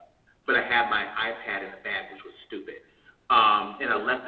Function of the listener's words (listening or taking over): listening